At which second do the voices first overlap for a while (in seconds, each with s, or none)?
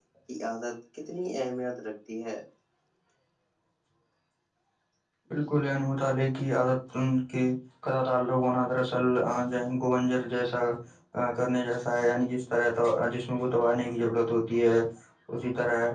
none